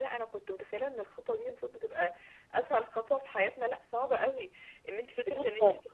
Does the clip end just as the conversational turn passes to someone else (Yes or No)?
No